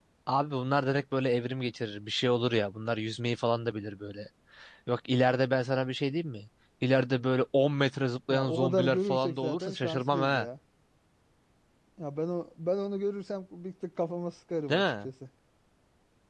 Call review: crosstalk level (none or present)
present